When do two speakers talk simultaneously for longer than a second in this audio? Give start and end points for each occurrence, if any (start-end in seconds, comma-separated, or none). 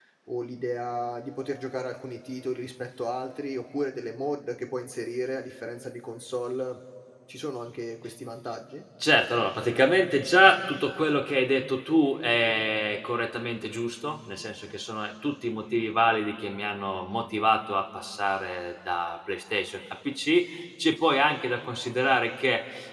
none